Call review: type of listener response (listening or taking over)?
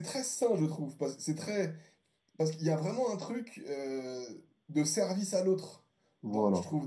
listening